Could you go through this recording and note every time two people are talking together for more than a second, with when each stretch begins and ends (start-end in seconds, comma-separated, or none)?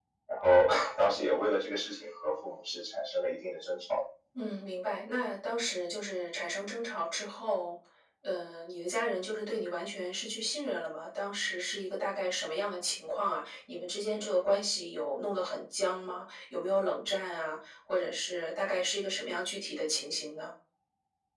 none